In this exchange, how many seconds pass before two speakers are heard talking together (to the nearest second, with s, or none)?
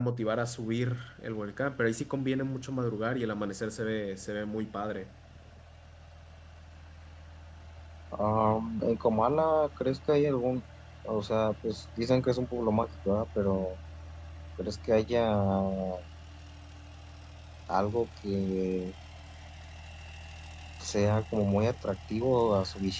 none